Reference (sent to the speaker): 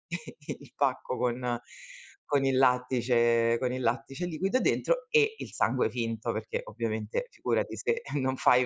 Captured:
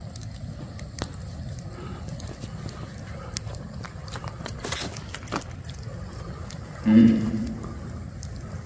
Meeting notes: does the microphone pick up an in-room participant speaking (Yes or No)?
Yes